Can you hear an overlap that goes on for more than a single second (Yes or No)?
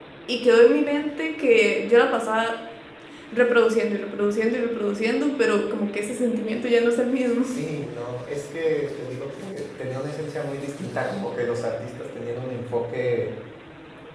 No